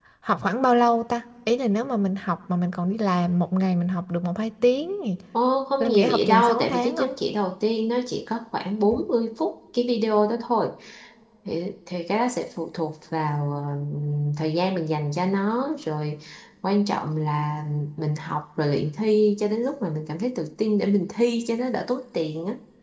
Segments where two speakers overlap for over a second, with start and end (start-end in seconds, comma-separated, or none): 5.8-7.1